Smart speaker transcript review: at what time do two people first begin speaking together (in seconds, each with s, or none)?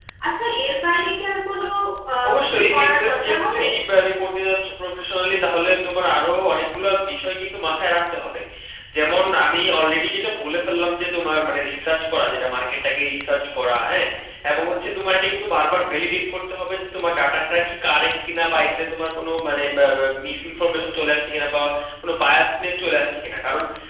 2.3 s